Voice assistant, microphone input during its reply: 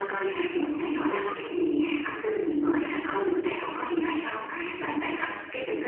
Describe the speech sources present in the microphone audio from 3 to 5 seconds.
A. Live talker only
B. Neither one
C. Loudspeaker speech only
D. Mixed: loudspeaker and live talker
C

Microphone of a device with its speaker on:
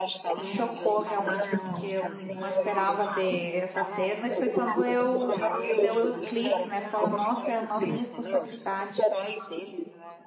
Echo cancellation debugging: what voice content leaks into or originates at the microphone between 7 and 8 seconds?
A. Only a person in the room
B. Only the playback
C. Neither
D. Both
D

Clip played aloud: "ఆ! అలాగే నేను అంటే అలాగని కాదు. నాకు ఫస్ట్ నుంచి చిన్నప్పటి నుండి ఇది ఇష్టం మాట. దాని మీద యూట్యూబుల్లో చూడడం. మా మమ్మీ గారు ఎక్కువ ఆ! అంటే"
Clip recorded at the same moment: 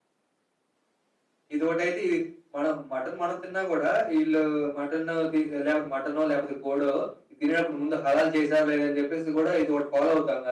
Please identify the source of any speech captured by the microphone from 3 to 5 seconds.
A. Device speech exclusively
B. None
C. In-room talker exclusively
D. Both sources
C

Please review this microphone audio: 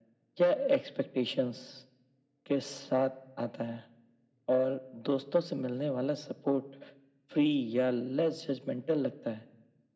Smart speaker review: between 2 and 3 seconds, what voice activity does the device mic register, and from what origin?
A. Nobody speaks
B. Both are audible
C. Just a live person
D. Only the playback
D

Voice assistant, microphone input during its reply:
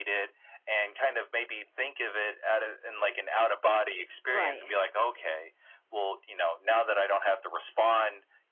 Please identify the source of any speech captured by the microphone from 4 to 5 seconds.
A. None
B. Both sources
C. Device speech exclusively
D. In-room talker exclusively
B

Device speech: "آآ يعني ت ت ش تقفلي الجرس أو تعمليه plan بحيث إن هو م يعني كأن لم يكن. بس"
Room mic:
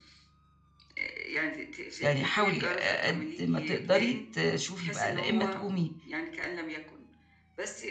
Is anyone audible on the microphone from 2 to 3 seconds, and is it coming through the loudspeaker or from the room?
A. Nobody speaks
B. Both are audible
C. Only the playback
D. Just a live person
B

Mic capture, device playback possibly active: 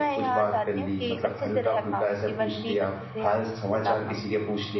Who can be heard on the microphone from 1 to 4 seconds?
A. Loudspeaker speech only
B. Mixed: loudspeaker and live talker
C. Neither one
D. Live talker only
B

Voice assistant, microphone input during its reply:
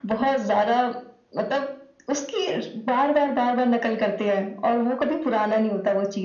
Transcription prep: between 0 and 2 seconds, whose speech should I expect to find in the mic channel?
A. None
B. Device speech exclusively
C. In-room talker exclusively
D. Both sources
B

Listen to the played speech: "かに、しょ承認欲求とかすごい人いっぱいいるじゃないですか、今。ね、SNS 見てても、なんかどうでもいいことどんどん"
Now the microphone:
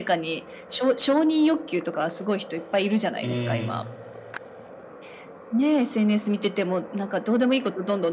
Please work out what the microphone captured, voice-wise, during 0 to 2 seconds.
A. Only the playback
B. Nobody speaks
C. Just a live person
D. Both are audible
A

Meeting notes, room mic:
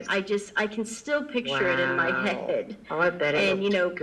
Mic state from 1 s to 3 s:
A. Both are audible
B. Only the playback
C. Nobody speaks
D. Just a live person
B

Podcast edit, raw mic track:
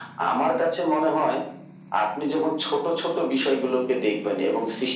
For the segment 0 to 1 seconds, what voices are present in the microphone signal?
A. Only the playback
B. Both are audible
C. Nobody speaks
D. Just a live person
A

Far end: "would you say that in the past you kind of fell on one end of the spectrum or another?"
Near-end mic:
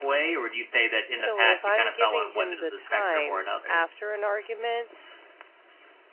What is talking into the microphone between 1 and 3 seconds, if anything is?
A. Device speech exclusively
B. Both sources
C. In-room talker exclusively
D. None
B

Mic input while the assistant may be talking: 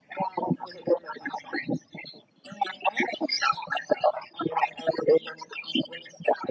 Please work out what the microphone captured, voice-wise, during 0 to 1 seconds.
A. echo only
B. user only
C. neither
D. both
A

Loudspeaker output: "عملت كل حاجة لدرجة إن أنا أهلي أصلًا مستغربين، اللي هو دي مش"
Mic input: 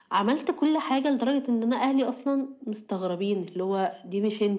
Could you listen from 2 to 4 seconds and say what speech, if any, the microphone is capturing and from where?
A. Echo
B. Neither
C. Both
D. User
A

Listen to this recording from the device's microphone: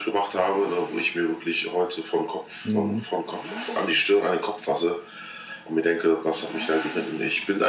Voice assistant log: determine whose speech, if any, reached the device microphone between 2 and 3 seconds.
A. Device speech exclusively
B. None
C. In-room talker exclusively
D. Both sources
D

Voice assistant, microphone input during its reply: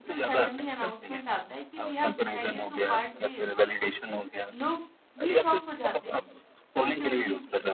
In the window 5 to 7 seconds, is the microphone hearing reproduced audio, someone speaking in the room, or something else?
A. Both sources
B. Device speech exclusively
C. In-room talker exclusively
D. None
A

